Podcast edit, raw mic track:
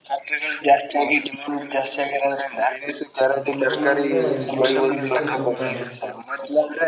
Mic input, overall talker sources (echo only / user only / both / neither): both